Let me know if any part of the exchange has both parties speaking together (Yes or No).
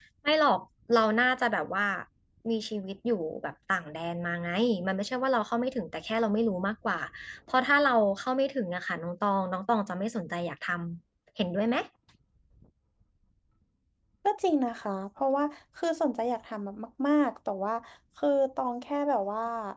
No